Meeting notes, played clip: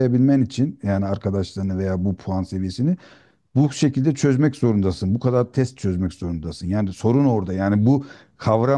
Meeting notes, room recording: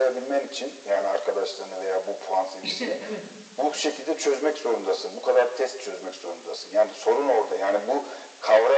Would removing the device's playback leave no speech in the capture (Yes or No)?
No